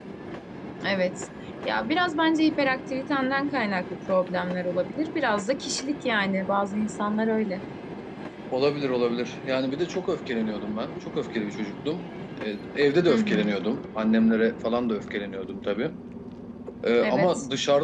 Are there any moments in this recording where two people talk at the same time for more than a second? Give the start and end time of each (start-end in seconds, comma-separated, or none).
none